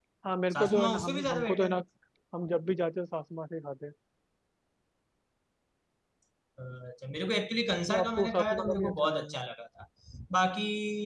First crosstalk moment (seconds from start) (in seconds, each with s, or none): 0.5 s